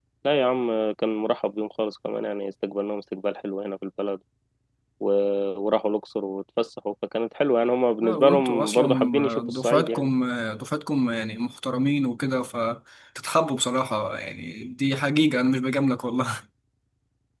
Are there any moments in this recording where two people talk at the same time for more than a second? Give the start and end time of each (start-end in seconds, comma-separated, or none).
8.0-10.1